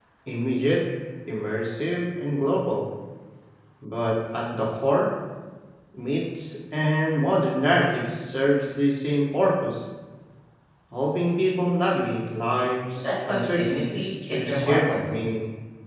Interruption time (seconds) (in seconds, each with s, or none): 12.9 s